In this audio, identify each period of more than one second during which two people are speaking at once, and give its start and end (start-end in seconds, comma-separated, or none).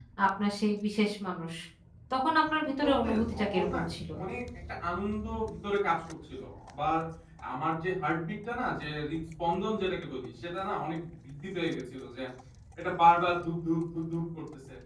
2.5-3.8